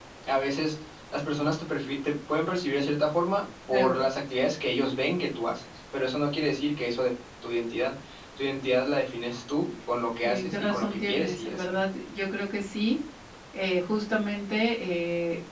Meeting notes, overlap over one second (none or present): present